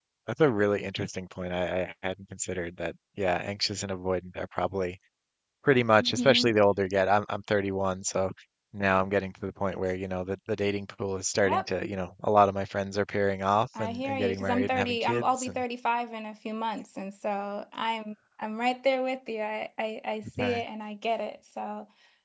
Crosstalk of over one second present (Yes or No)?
Yes